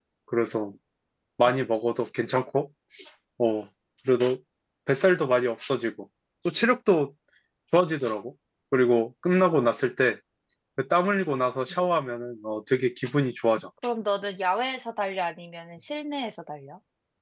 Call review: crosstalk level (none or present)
none